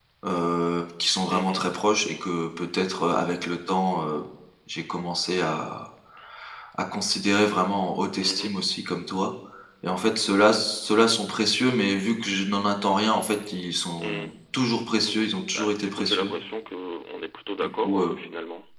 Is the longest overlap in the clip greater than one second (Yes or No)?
Yes